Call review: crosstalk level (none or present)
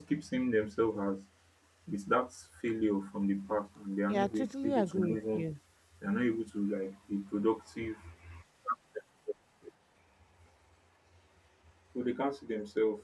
present